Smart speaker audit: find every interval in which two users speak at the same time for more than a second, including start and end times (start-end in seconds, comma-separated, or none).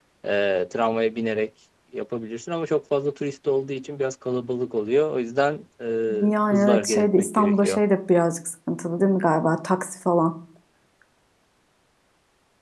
6.5-7.8